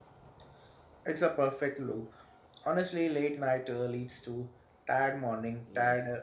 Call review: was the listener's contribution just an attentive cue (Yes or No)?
No